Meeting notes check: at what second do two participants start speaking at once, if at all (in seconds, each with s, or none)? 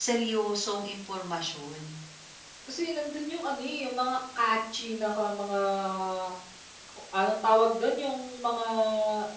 none